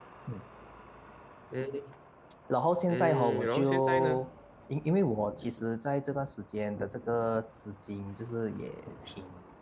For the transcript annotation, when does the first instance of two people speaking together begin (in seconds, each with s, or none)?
2.9 s